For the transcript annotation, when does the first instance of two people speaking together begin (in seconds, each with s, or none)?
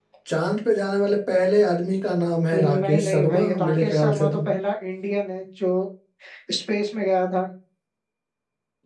2.5 s